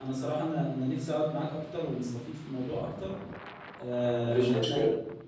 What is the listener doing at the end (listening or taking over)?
listening